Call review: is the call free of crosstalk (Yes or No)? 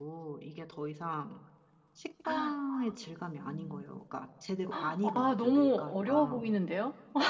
No